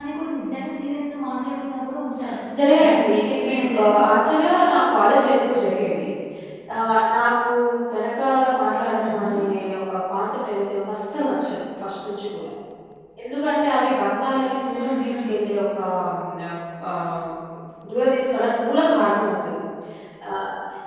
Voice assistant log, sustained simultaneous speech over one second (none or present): present